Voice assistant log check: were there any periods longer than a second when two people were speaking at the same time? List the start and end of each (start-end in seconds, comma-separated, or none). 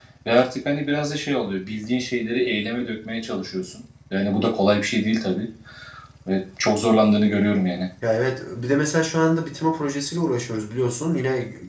none